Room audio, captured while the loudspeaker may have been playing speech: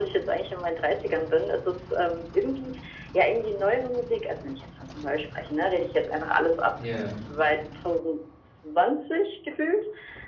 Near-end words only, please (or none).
Ja.